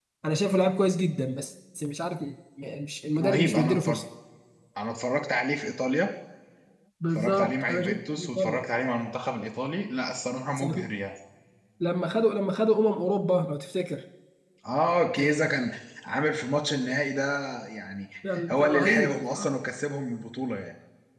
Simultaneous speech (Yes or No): Yes